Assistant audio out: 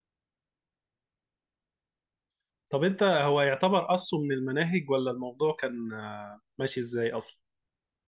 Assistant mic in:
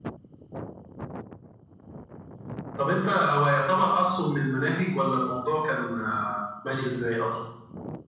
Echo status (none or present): present